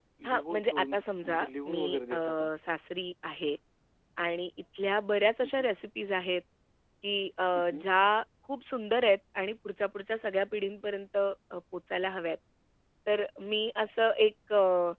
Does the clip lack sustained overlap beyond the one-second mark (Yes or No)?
No